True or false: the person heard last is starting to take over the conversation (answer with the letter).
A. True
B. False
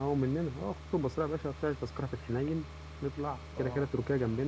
B